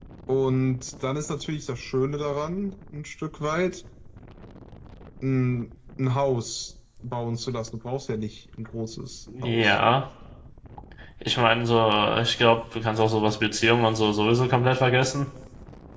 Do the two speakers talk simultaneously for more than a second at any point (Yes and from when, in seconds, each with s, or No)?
No